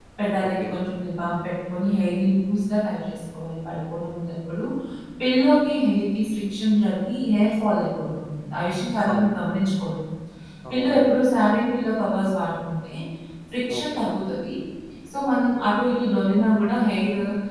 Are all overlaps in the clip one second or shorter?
Yes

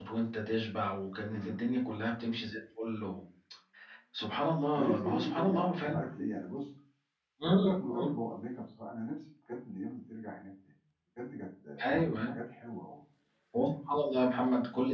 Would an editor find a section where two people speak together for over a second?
Yes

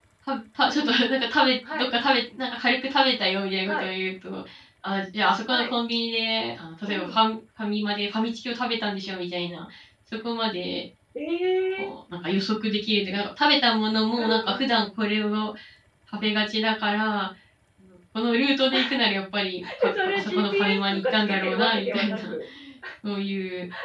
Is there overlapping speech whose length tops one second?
Yes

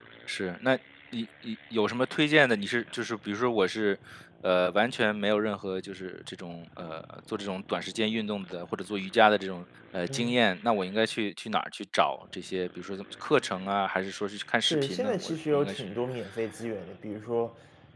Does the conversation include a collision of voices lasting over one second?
Yes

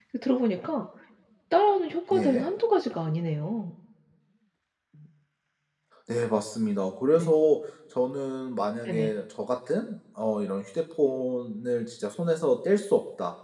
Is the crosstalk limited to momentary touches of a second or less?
Yes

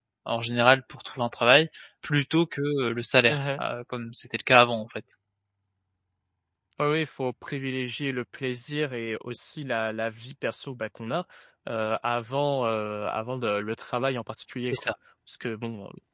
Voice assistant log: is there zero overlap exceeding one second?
Yes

